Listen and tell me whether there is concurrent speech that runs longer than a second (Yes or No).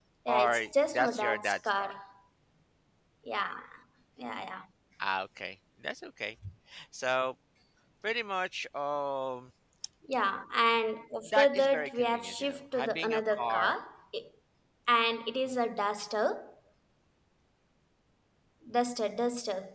Yes